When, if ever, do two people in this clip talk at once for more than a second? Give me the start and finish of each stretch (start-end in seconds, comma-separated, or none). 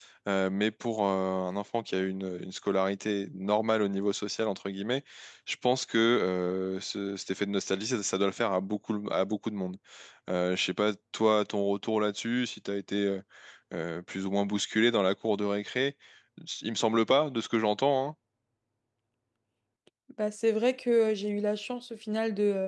none